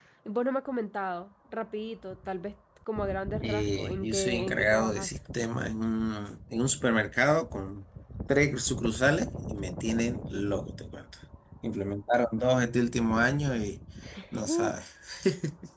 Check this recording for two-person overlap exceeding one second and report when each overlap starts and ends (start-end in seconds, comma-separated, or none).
3.4-5.1